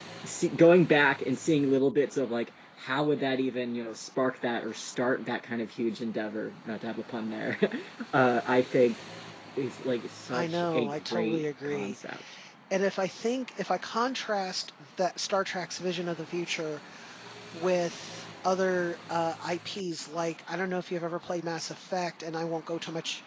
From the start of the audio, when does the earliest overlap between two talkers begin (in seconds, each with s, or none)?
10.3 s